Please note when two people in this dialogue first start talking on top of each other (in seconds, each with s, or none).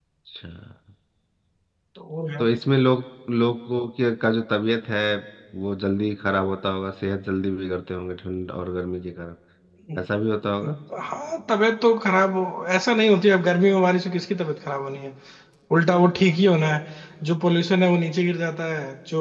none